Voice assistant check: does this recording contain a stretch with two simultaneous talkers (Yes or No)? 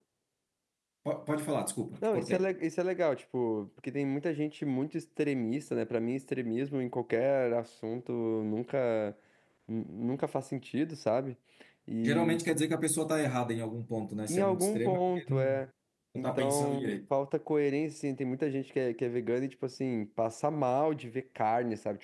Yes